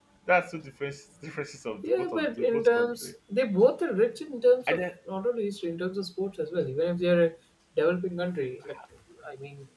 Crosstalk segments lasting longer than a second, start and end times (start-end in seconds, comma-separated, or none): 1.8-3.1